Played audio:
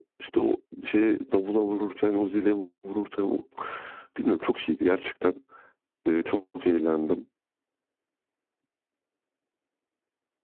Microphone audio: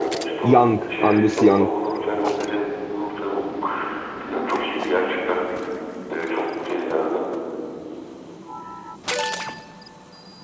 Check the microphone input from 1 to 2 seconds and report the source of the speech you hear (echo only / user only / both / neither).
both